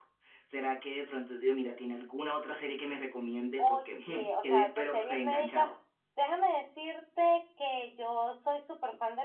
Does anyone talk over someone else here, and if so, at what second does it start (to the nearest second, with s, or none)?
4 s